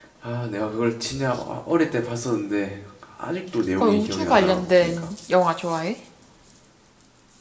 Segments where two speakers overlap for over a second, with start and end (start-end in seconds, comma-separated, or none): 3.7-5.1